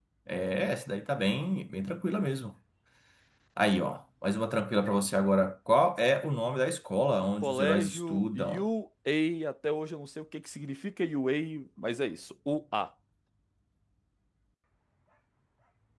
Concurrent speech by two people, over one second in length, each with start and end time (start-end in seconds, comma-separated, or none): 7.4-8.6